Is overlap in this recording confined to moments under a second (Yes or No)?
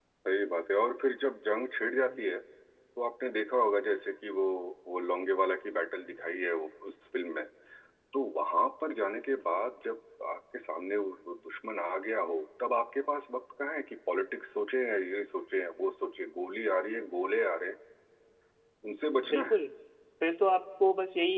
Yes